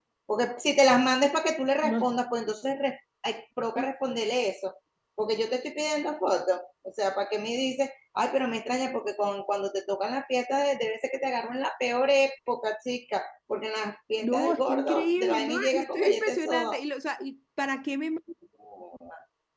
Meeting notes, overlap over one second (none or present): present